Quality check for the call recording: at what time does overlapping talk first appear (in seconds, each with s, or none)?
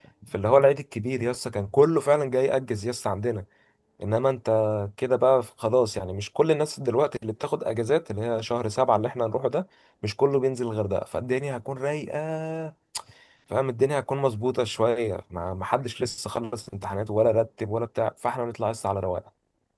none